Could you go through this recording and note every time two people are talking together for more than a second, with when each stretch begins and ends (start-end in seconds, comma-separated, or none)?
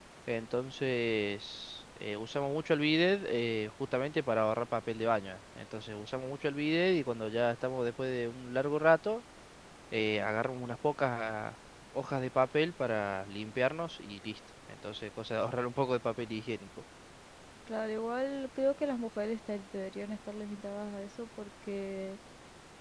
none